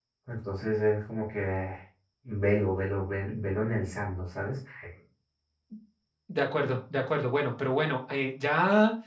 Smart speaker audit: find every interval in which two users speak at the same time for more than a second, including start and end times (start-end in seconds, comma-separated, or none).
none